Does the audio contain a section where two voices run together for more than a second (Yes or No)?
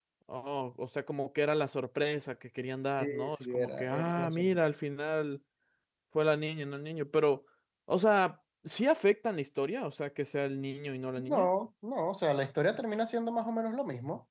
Yes